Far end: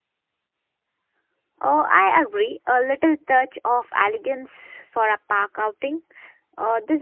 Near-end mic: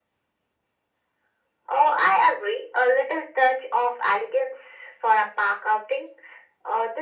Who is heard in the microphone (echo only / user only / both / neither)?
echo only